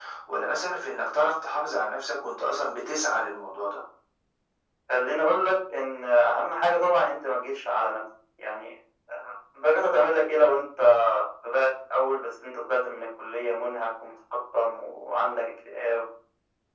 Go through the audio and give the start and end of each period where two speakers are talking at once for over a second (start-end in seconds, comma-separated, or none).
none